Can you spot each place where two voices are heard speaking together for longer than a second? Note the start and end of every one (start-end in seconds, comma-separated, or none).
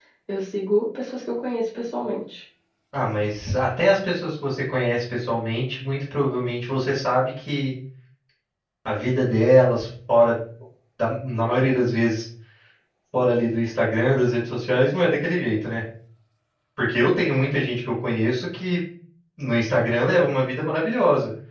none